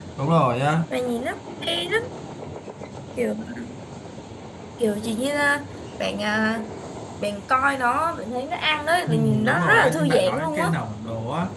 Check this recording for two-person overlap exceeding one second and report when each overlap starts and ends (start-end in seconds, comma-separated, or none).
9.1-10.7